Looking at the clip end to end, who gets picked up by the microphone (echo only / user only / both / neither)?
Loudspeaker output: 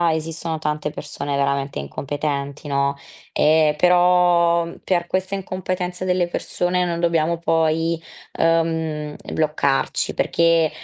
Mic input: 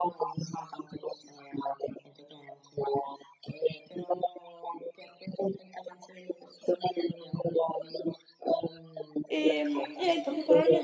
both